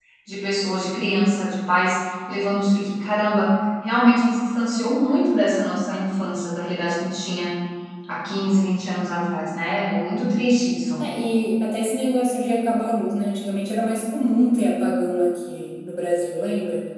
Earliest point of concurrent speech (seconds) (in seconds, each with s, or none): none